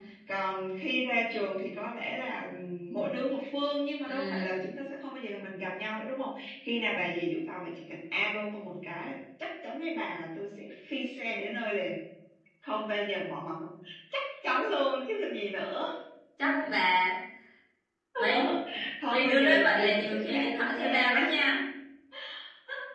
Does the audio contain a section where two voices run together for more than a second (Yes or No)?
Yes